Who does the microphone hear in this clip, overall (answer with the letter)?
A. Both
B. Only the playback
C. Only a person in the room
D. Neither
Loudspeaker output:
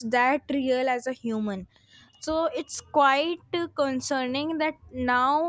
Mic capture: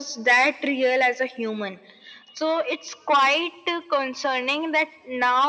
B